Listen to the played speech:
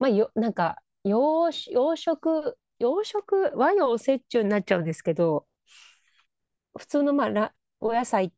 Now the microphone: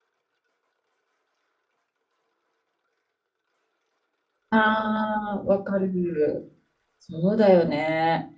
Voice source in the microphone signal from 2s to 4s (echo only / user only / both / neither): neither